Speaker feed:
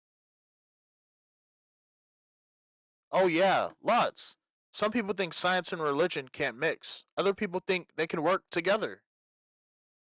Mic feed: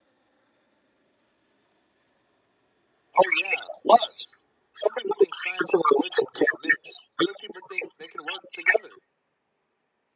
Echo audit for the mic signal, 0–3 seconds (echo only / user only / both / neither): neither